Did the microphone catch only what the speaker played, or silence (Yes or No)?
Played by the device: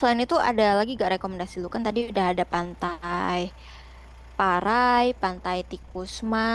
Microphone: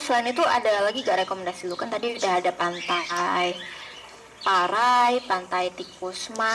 Yes